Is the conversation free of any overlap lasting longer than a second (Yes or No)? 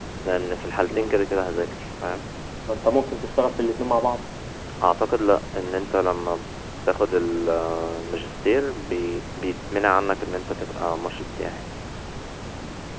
Yes